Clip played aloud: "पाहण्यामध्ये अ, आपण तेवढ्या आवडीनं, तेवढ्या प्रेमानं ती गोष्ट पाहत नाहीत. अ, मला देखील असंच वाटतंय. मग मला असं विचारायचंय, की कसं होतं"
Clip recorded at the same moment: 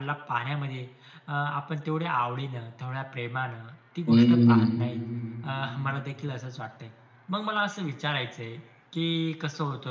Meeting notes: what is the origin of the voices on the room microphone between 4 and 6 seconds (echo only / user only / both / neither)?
both